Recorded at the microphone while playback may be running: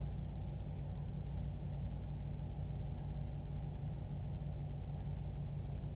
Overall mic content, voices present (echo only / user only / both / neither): neither